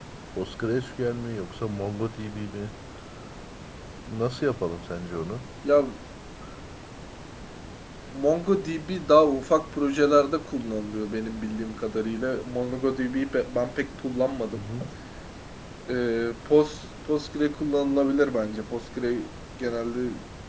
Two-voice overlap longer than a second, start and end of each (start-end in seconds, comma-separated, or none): none